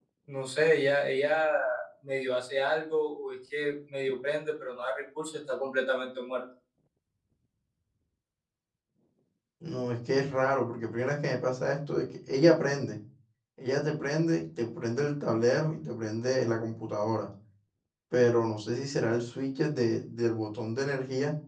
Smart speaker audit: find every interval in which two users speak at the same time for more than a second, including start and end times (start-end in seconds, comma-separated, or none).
none